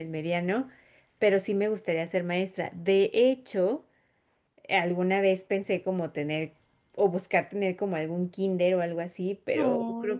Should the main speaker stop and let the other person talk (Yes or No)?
No